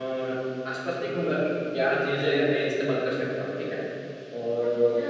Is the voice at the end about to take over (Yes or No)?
No